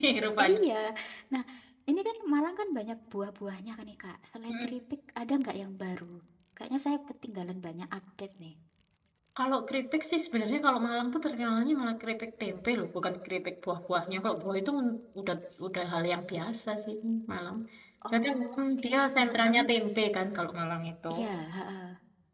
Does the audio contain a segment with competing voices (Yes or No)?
Yes